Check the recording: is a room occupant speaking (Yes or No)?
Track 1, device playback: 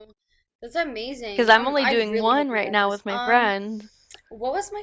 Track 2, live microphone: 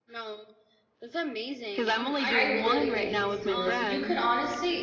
Yes